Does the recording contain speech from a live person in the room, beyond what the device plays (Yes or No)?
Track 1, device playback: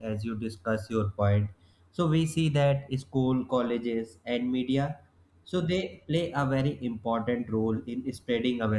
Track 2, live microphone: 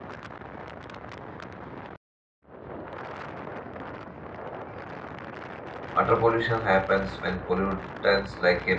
Yes